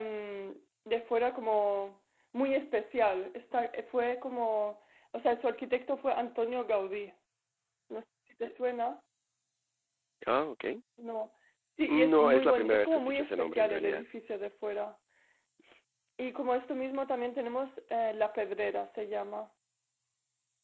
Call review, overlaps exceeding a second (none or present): present